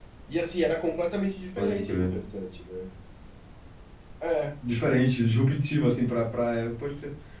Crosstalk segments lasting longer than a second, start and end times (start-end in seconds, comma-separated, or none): none